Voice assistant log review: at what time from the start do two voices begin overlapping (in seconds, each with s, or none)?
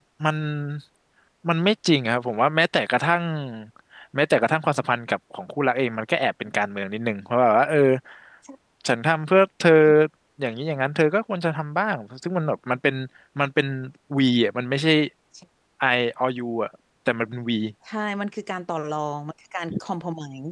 none